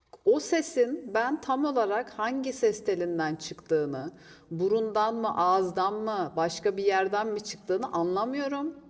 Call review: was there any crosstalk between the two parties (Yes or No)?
No